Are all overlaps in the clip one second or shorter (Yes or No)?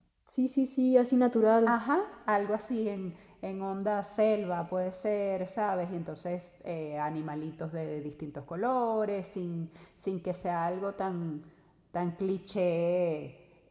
Yes